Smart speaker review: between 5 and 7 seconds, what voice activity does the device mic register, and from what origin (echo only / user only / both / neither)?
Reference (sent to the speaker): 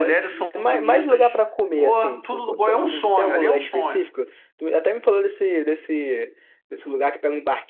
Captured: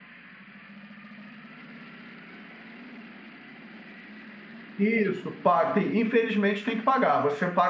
user only